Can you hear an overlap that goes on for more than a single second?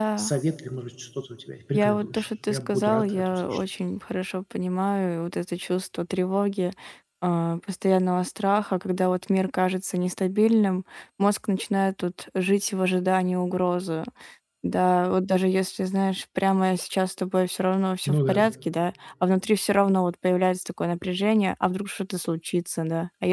Yes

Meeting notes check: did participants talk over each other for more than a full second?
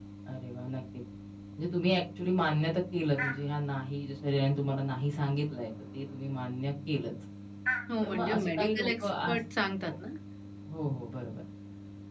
Yes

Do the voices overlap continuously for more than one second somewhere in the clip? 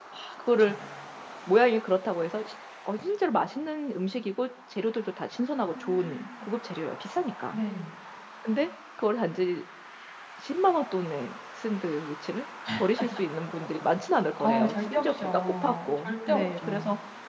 Yes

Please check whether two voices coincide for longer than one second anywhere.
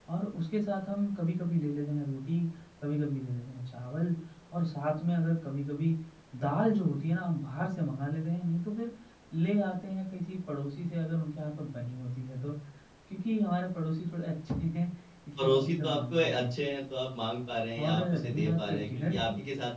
Yes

